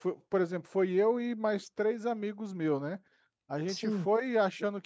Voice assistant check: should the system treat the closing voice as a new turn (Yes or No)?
No